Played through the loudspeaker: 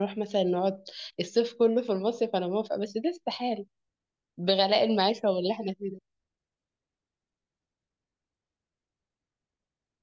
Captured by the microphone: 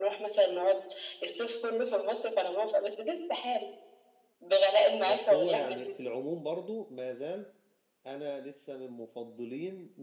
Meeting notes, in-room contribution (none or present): present